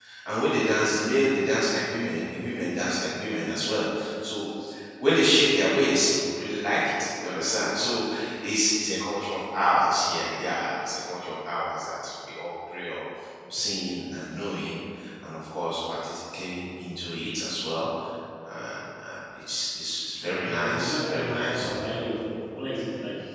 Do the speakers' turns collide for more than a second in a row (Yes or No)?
Yes